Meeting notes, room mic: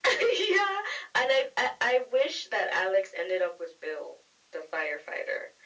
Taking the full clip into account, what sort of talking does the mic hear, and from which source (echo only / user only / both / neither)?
echo only